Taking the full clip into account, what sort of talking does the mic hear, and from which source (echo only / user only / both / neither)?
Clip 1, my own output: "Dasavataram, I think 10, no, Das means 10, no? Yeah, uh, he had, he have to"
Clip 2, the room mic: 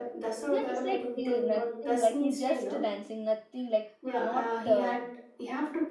both